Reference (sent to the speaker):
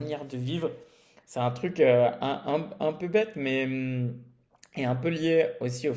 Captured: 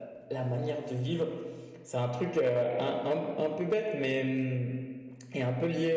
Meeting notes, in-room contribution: none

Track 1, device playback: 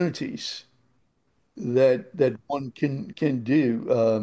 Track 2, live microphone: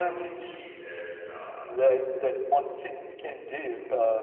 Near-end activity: present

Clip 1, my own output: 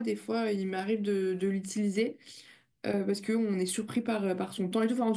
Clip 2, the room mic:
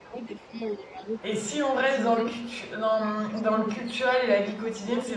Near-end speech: present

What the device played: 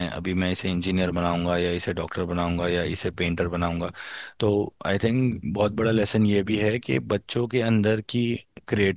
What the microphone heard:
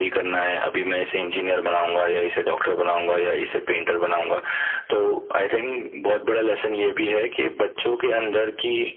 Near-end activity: none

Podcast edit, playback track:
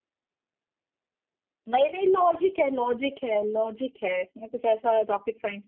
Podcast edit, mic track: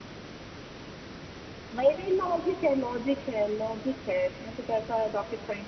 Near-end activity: none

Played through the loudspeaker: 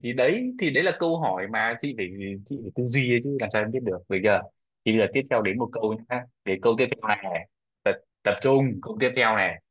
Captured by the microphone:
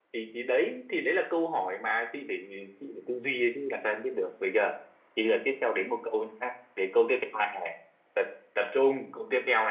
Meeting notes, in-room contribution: none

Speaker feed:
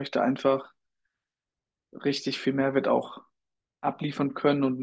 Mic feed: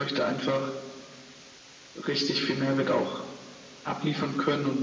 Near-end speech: none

